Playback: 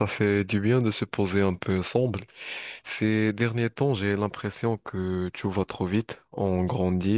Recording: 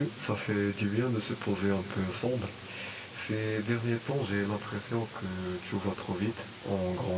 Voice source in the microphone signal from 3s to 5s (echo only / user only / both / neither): echo only